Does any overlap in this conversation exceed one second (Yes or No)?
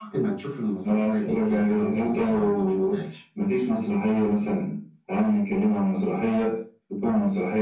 Yes